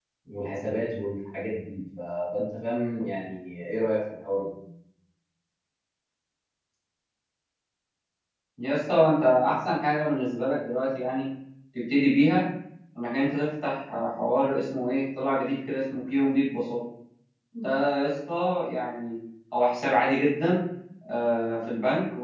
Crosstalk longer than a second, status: none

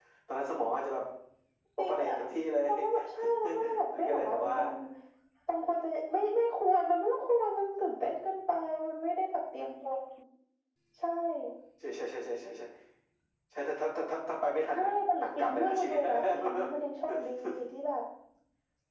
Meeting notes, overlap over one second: present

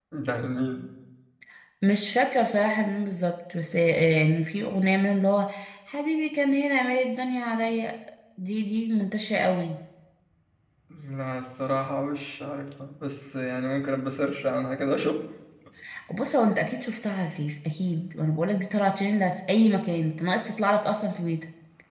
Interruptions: none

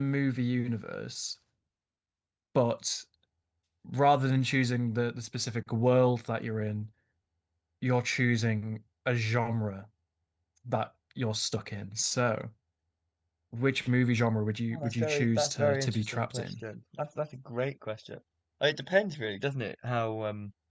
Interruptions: present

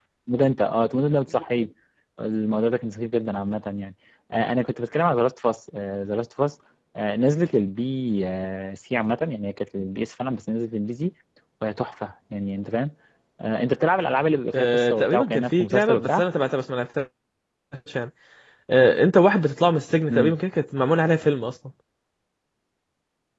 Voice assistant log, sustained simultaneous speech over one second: present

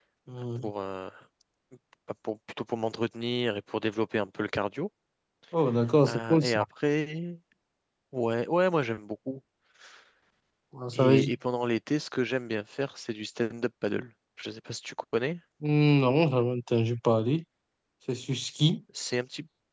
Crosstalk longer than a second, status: none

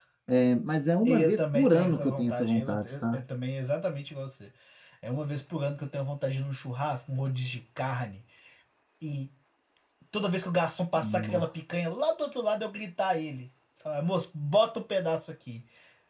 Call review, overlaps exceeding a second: present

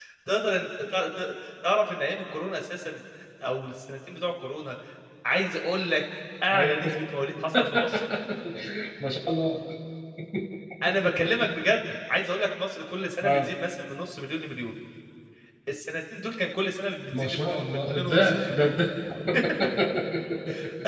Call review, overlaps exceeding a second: present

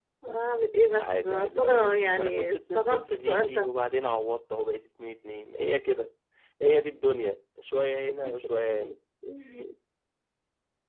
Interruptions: present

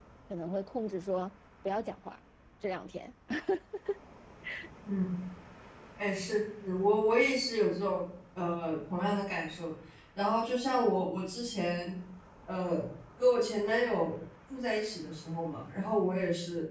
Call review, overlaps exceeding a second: none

